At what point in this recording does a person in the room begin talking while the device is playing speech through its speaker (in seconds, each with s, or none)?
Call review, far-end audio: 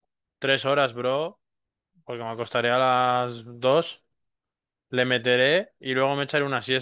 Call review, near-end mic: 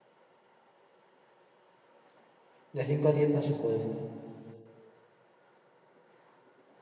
2.8 s